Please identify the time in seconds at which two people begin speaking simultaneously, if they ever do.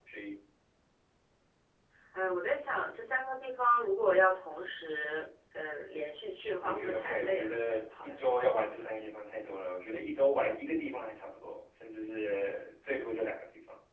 6.6 s

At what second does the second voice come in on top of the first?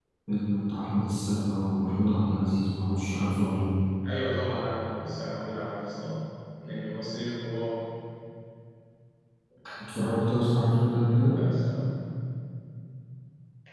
none

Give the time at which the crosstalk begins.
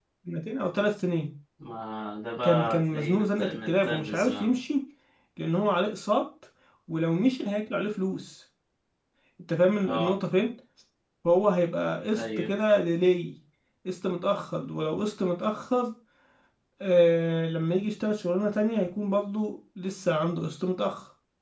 2.4 s

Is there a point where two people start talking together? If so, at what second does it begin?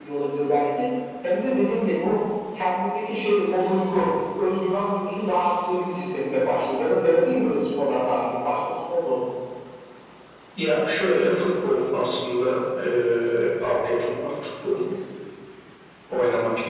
none

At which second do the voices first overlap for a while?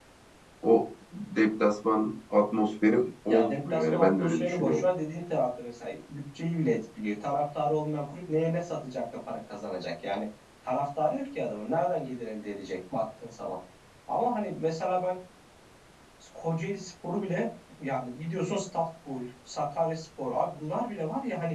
3.3 s

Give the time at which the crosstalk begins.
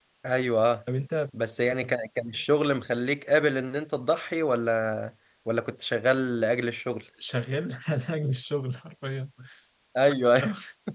none

